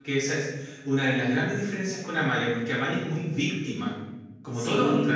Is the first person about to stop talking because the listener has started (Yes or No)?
Yes